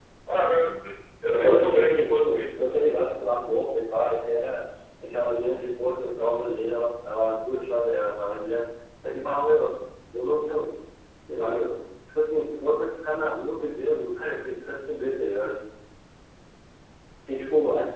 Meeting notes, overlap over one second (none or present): present